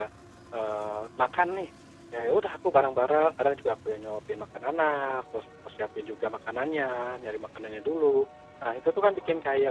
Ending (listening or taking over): listening